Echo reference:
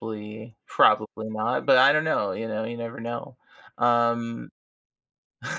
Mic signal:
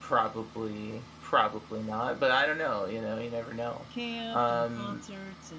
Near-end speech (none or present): present